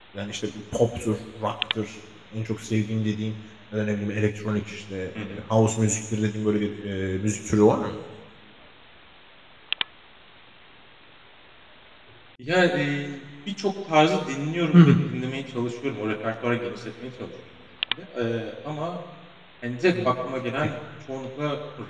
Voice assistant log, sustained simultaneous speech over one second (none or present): none